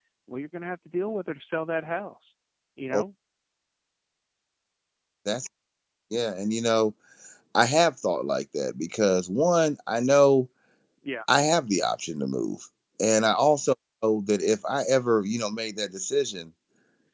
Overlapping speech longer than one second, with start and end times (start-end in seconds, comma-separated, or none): none